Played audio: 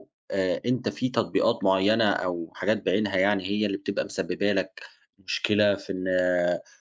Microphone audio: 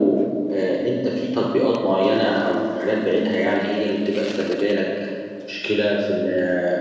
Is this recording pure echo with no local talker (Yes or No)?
Yes